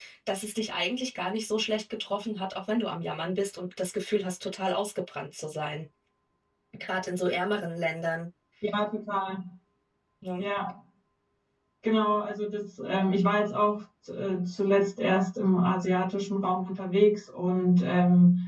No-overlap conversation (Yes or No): Yes